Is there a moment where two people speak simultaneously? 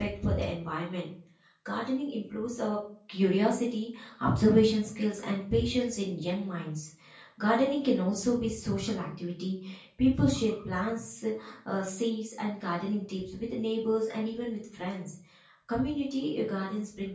No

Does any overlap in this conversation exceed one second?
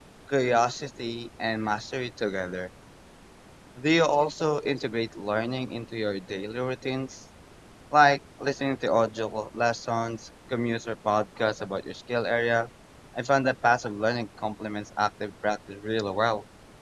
No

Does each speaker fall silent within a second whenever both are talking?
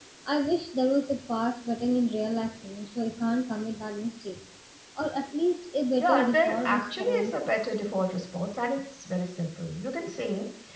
No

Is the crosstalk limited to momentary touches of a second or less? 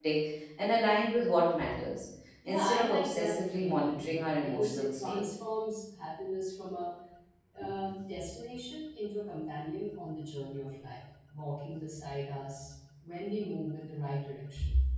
No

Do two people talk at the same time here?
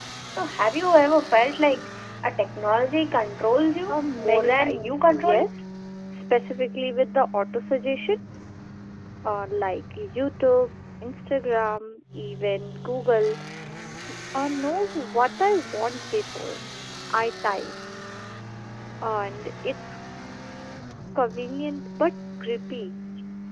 Yes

